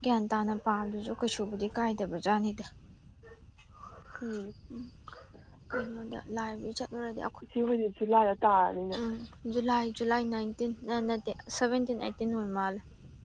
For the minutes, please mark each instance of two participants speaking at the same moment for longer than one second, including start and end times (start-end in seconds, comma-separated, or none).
none